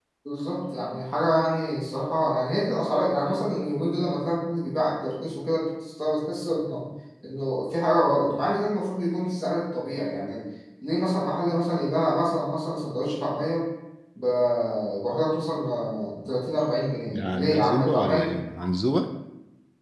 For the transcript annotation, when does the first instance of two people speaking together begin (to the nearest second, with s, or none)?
17 s